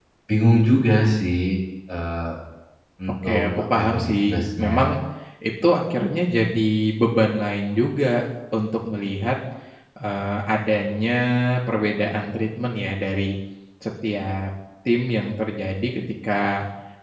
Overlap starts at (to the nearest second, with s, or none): 3 s